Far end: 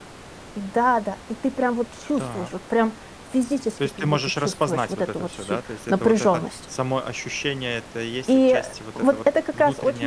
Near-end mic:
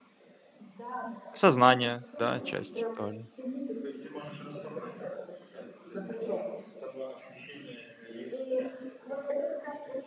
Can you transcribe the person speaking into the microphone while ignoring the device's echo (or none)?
Сознание, да, часть тоже.